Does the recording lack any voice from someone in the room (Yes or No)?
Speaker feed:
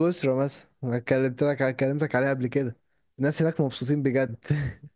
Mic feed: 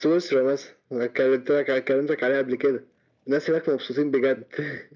Yes